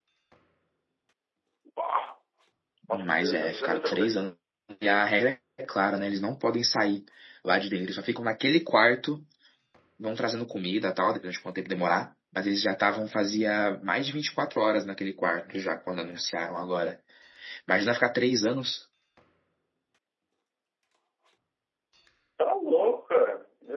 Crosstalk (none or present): present